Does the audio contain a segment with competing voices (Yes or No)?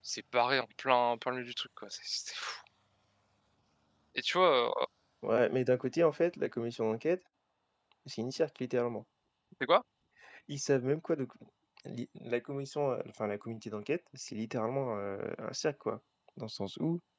No